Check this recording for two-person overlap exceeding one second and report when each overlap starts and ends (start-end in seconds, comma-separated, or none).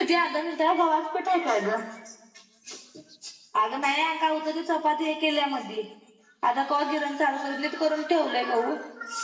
none